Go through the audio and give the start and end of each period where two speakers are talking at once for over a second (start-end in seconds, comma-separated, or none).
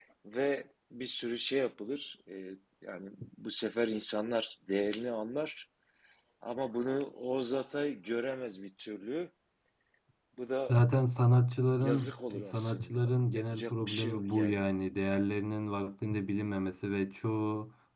11.8-14.6